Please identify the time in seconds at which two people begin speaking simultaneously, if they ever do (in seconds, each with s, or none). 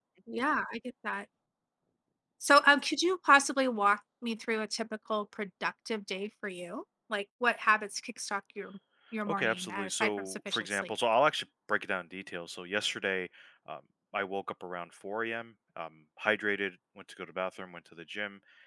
9.3 s